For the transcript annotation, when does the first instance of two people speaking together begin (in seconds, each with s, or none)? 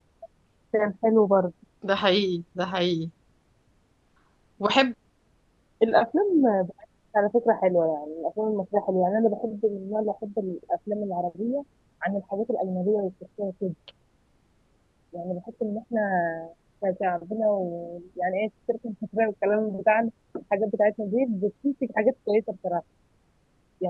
none